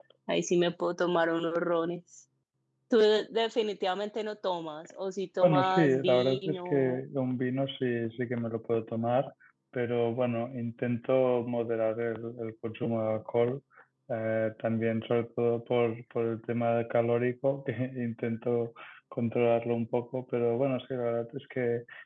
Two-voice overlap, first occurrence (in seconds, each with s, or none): 5.4 s